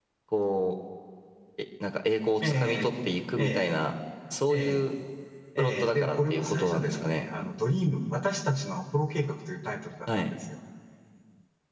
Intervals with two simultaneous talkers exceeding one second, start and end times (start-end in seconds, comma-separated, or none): 5.6-7.2